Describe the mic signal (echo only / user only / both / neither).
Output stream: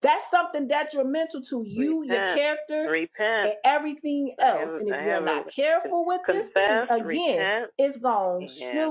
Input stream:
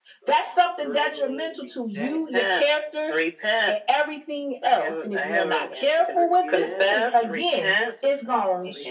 both